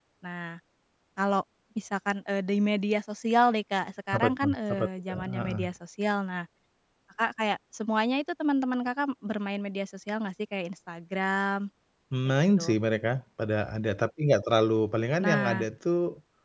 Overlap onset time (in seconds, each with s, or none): 4.1 s